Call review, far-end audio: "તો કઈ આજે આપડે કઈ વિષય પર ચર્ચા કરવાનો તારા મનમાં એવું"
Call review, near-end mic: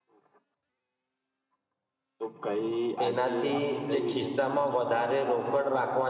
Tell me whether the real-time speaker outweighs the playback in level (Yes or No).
Yes